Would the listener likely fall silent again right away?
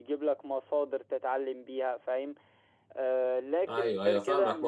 No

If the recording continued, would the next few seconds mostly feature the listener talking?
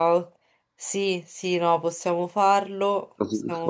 Yes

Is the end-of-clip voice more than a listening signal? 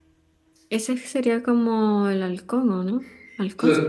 Yes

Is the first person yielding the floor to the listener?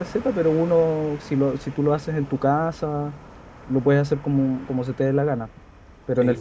Yes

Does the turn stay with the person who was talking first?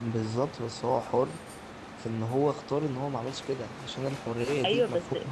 No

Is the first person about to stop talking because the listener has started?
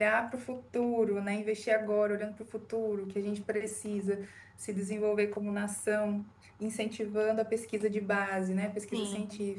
No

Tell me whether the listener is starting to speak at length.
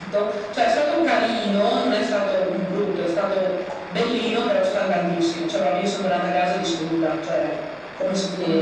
Yes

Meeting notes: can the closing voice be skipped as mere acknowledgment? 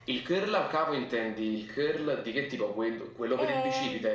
No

